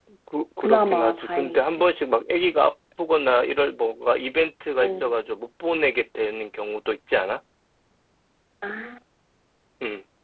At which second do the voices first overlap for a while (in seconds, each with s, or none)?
0.6 s